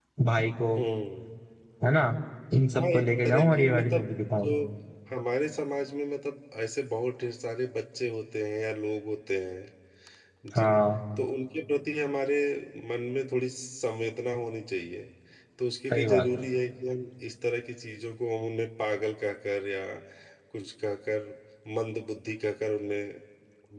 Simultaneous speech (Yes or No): Yes